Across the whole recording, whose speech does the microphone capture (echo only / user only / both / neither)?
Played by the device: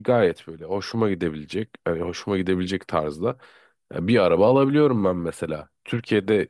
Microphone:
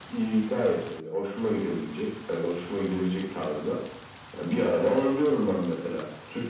echo only